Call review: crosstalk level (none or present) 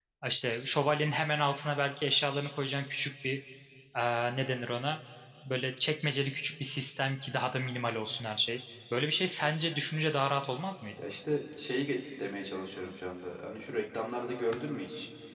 none